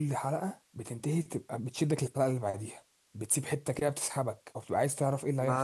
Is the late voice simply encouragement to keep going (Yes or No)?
No